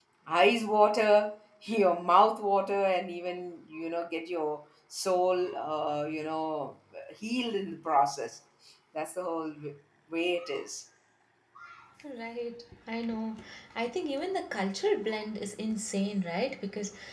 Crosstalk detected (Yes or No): No